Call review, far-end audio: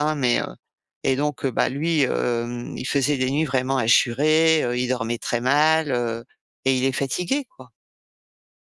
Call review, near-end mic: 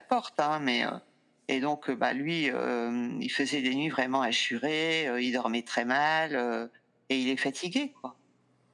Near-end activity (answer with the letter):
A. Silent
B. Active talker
A